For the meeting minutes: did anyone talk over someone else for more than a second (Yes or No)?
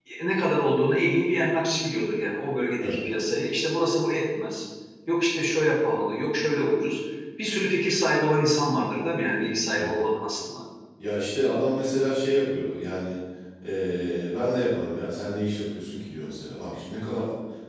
No